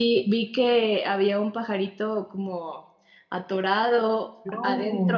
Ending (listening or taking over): listening